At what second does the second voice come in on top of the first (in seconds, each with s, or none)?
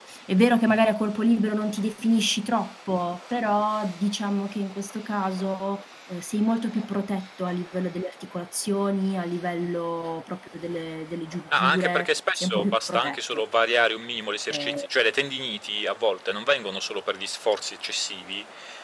11.6 s